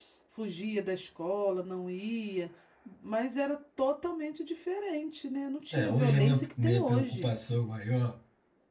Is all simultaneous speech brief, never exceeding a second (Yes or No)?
No